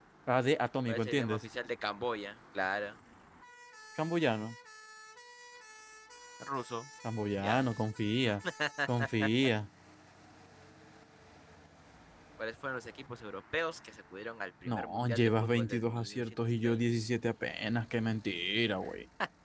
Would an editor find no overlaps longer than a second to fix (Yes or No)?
No